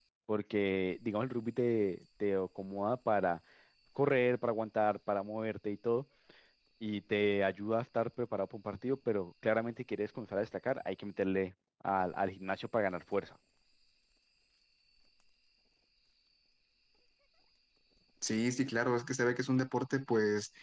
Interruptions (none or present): none